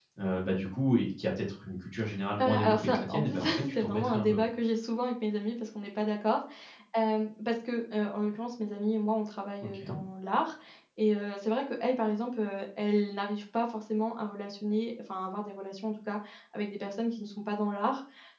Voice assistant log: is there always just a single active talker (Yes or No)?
No